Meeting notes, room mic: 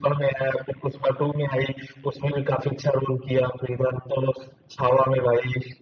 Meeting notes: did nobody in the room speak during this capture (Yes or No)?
Yes